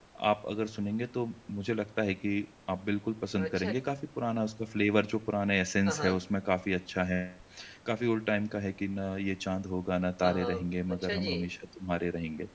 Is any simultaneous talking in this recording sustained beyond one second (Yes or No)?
Yes